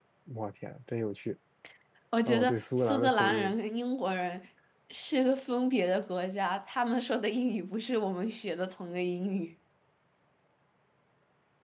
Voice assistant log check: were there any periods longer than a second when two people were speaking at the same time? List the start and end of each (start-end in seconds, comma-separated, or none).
2.3-3.5